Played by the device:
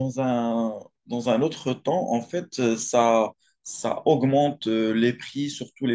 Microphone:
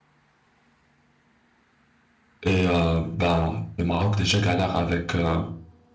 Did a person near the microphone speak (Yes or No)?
Yes